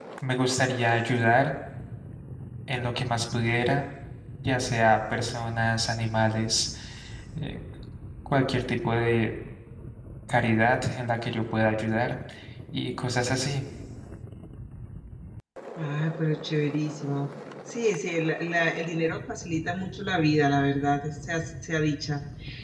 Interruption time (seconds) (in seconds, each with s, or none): none